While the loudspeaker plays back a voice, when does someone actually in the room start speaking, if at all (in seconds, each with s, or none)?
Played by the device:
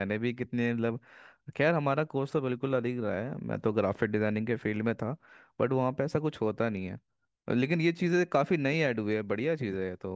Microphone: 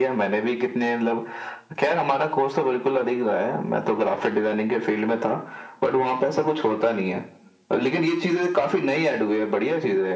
none